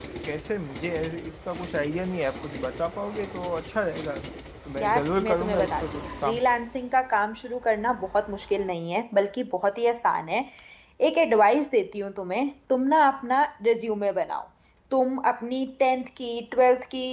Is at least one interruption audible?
Yes, from 4.8 s

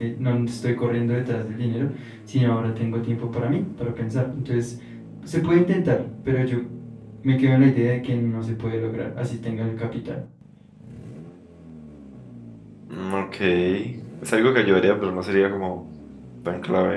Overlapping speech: No

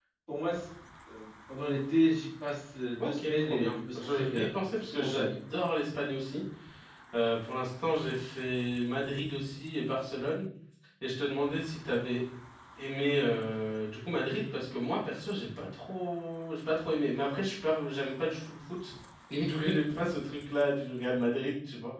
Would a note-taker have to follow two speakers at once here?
Yes, from 3.0 s

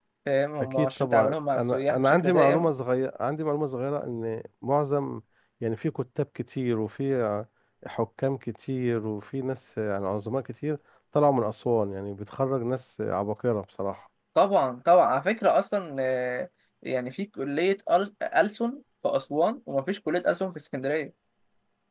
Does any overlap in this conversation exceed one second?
Yes, from 0.6 s

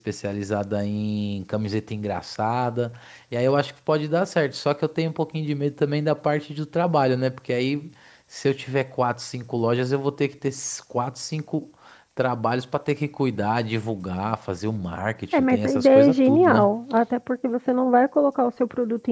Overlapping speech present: Yes, from 15.3 s

